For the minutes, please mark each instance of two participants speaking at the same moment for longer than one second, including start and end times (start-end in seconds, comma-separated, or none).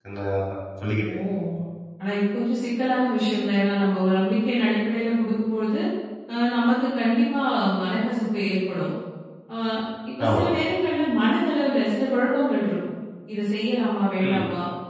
none